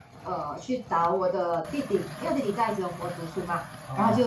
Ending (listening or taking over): listening